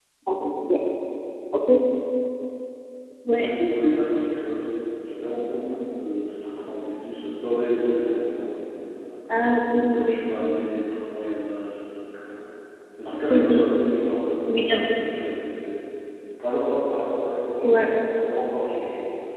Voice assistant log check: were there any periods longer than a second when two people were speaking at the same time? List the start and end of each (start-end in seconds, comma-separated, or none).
none